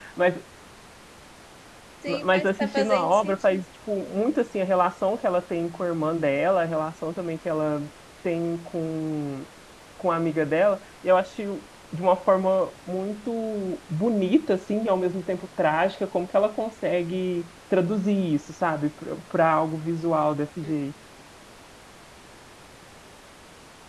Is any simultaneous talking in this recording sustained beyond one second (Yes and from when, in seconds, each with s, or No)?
Yes, from 2.1 s